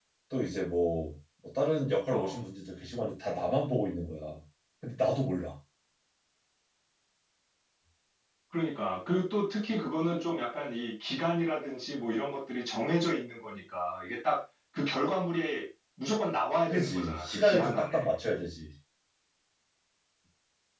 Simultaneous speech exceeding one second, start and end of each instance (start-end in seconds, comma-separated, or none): 16.7-18.0